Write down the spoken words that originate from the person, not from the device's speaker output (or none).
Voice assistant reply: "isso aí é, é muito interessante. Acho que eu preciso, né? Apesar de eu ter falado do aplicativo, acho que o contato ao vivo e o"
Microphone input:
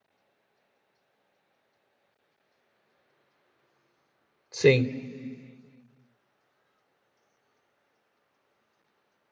Sim.